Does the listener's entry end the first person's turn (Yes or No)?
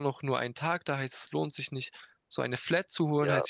No